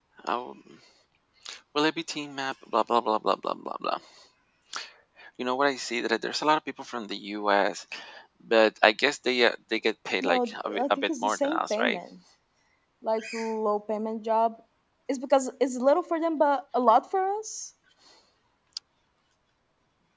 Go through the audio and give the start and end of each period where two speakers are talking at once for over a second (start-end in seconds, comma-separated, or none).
10.2-12.0